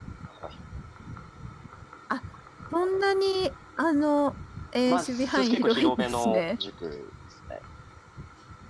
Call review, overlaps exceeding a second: present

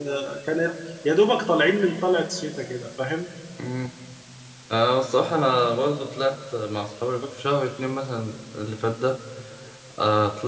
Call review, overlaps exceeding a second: none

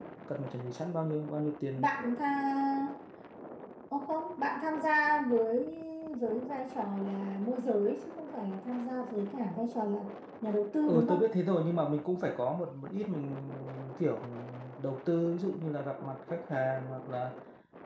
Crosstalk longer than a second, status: none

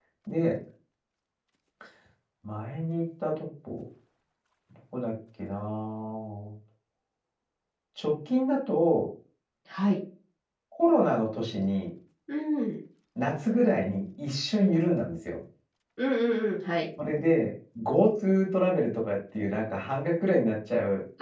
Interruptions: none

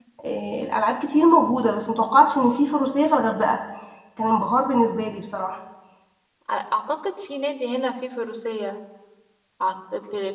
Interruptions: none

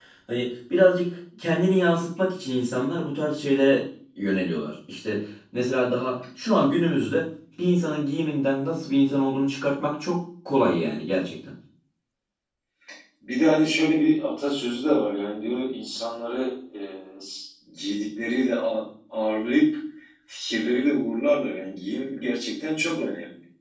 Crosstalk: none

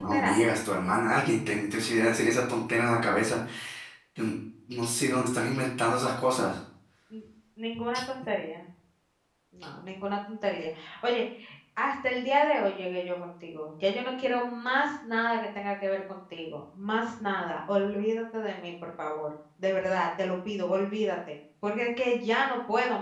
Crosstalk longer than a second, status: none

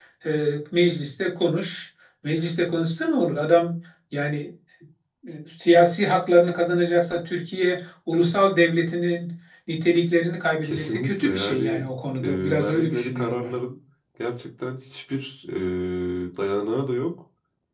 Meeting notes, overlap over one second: present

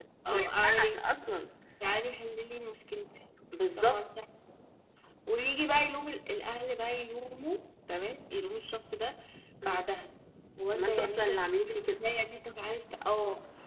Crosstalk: present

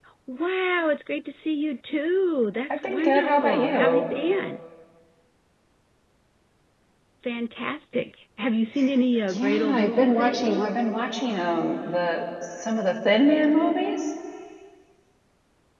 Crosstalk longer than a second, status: present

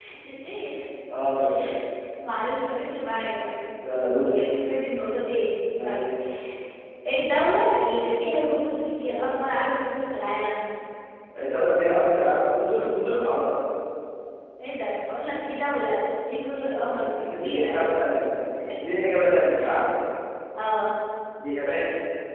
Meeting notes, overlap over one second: present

